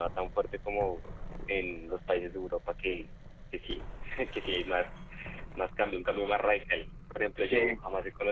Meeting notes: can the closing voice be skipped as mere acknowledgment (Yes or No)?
Yes